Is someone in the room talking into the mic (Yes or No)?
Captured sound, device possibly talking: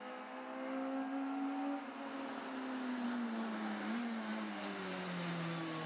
No